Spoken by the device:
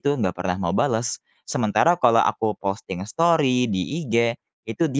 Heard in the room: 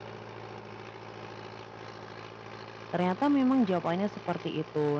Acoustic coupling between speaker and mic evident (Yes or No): No